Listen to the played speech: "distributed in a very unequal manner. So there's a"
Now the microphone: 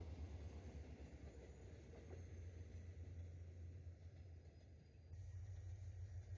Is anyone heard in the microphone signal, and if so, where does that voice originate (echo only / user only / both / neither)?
neither